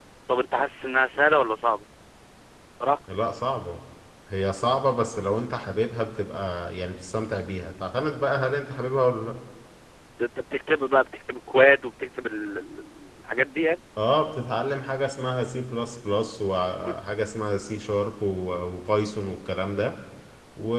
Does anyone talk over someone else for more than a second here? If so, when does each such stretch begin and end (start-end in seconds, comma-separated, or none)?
none